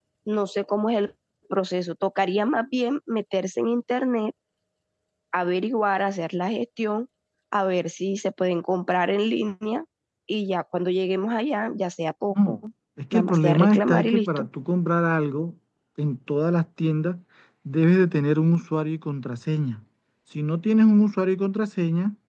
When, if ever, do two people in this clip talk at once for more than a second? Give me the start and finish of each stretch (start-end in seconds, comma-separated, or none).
13.1-14.5